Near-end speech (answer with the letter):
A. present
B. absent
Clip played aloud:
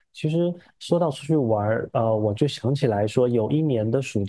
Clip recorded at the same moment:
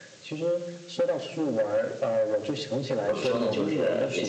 A